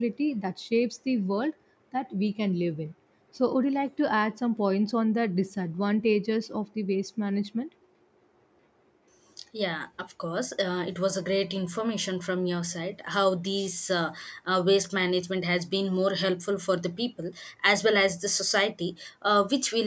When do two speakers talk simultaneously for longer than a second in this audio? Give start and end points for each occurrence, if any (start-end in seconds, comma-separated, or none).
none